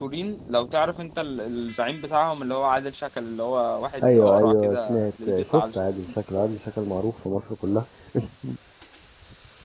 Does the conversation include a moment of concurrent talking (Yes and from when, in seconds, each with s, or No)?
Yes, from 4.0 s